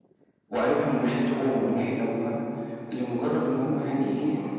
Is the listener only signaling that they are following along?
Yes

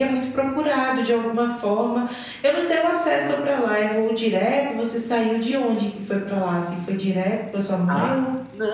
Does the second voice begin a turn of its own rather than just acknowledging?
Yes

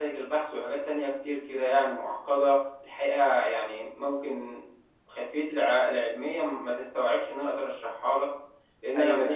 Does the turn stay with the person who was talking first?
No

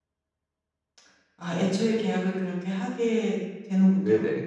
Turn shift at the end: Yes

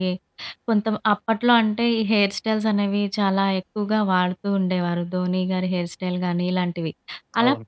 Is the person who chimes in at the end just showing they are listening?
Yes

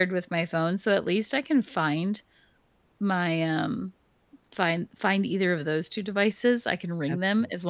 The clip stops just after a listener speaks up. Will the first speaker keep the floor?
Yes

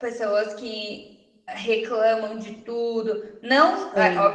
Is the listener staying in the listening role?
Yes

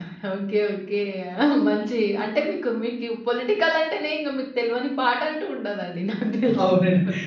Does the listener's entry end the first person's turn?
Yes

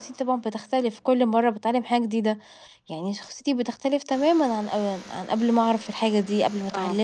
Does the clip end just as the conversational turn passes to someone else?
Yes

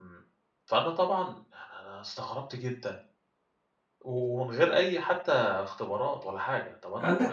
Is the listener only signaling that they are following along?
No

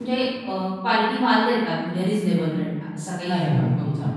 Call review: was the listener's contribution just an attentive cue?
No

